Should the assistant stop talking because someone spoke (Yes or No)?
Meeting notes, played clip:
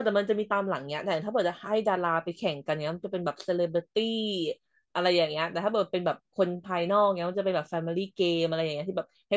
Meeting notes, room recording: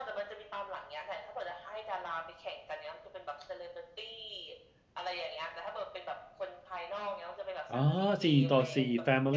Yes